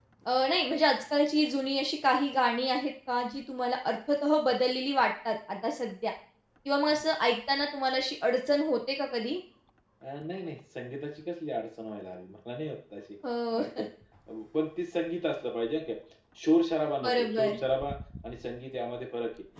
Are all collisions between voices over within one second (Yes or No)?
Yes